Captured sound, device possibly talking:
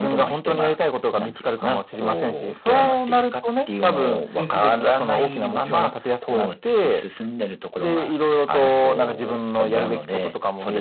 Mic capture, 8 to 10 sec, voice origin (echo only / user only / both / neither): echo only